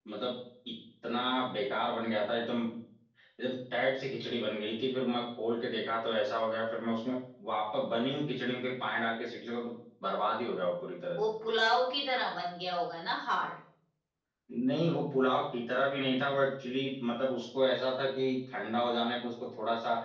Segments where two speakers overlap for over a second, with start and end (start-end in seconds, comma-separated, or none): none